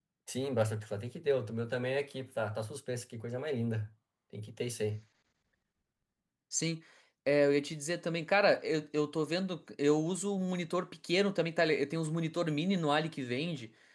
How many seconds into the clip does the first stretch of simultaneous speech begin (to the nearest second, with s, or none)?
none